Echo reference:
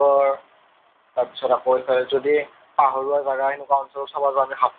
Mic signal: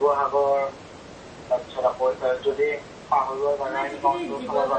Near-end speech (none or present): present